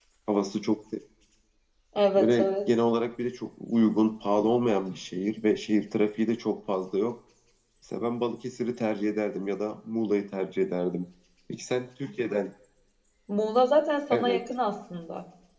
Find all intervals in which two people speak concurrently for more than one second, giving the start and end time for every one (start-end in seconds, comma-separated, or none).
none